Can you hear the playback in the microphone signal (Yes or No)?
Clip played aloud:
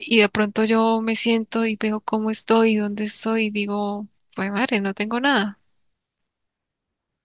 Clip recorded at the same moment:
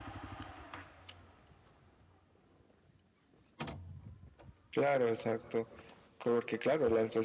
No